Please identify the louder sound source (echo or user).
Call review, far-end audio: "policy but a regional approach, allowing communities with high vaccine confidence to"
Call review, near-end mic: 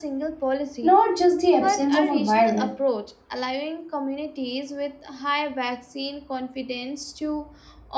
user